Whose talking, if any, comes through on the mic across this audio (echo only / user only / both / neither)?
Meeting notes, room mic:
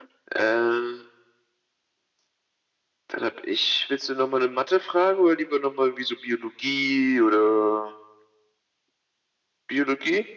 echo only